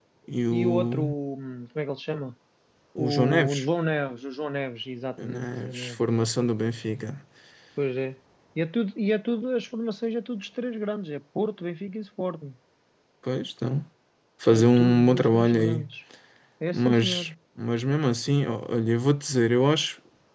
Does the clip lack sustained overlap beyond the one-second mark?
No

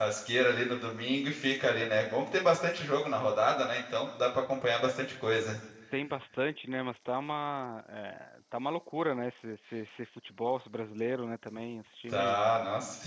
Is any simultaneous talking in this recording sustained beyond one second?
No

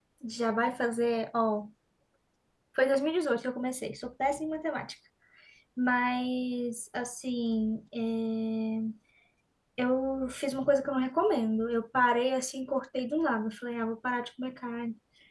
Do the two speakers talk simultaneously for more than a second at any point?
No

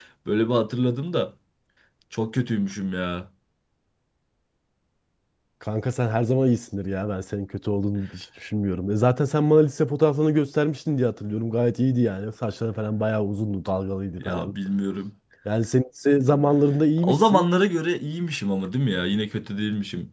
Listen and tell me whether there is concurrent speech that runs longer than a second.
No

